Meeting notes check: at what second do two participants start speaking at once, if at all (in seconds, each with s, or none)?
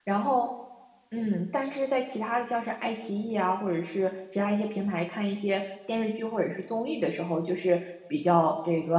none